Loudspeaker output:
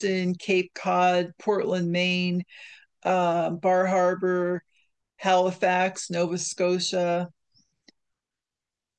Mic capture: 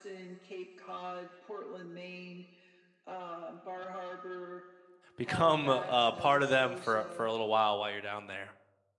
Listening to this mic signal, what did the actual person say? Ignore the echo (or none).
become uh, part of them for for a little while while you're down there.